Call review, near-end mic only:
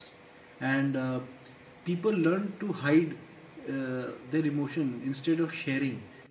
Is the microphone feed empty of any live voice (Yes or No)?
No